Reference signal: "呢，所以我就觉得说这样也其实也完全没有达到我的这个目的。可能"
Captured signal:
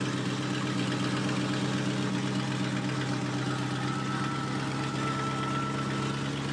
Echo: none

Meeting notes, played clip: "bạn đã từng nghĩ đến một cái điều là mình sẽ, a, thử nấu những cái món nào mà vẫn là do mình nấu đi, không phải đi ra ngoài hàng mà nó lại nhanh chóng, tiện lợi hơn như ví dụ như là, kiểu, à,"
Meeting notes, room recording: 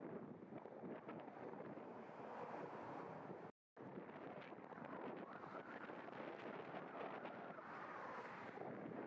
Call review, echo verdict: none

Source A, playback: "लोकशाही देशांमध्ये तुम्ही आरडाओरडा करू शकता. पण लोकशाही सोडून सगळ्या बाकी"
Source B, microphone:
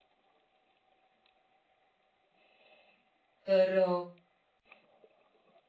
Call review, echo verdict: none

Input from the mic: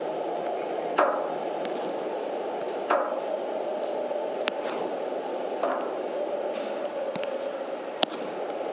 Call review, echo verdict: none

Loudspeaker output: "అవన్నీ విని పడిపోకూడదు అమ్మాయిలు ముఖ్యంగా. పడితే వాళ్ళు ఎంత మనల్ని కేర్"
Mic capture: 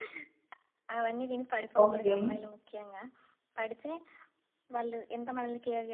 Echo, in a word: present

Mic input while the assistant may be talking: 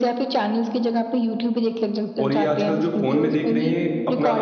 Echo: present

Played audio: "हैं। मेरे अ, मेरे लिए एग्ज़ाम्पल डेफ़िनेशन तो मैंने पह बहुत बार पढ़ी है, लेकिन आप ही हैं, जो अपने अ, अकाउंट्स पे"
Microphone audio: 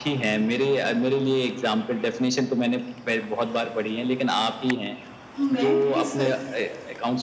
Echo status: present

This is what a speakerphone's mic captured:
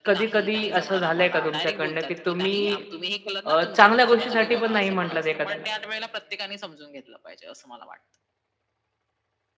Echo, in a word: present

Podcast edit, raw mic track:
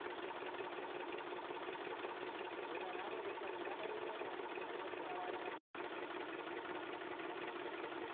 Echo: none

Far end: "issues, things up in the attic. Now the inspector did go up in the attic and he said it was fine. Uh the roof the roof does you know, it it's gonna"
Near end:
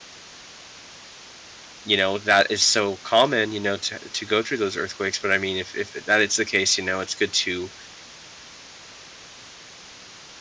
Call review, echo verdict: none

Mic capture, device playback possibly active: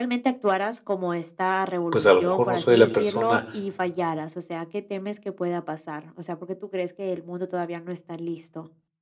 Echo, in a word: present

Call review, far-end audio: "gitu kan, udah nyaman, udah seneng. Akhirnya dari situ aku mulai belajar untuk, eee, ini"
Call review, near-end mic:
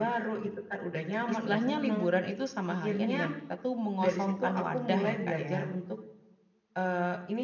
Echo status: present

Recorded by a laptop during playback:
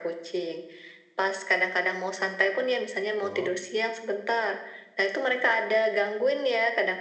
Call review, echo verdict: present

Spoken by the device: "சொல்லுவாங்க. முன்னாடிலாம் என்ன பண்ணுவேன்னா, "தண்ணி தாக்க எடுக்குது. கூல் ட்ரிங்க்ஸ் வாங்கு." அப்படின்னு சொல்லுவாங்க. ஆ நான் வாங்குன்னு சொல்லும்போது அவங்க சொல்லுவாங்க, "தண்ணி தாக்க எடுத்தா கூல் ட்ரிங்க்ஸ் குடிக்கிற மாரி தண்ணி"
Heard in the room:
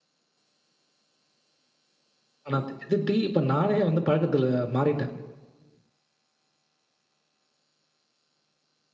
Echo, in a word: none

